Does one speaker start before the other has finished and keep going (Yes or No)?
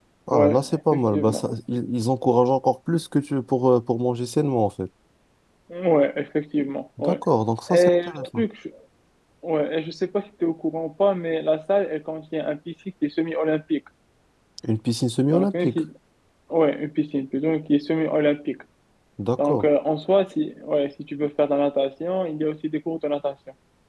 Yes